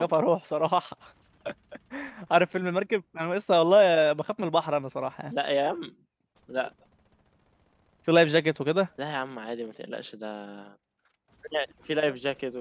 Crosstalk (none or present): none